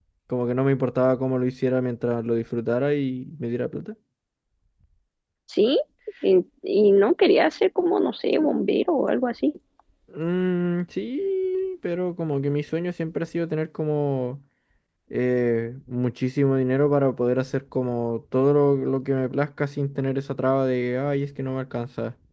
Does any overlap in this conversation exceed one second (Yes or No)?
No